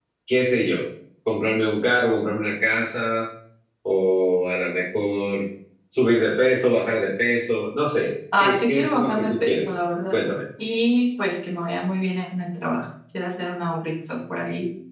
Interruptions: present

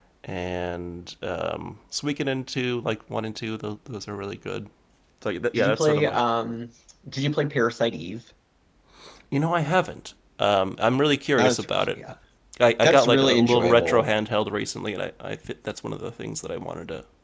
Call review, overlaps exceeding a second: present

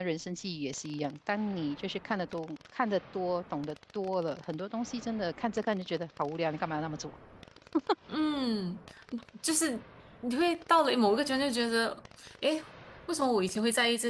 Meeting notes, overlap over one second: none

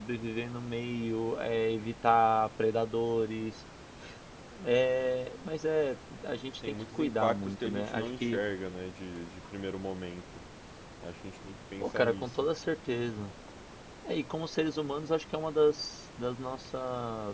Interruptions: present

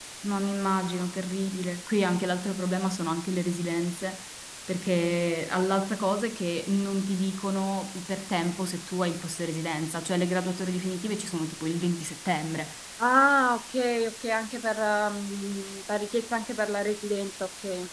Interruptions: none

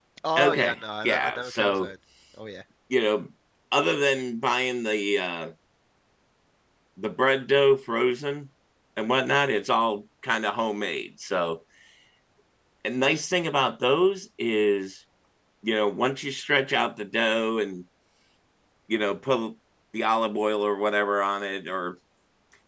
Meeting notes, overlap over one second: present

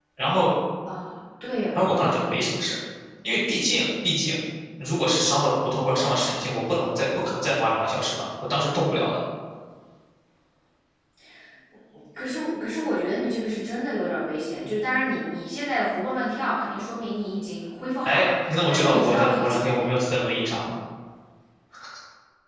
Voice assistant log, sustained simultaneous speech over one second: present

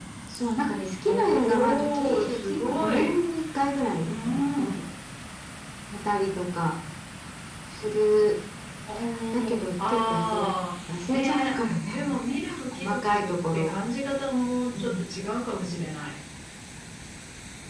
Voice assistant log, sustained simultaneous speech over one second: present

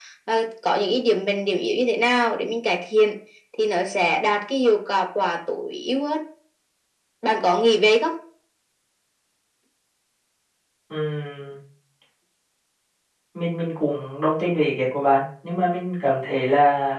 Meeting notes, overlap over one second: none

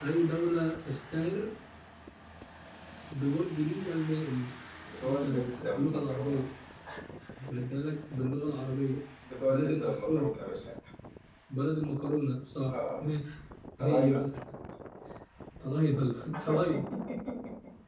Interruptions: present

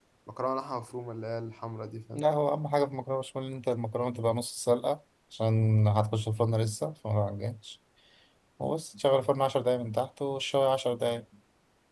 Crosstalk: none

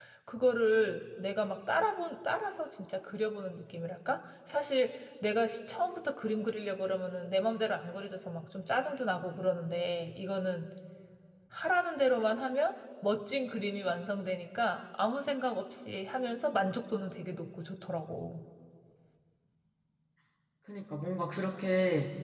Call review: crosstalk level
none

